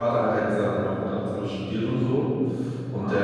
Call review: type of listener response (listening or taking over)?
listening